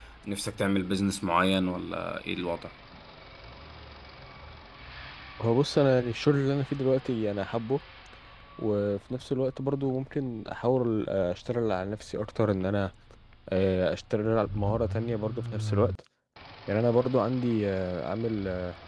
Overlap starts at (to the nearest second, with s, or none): none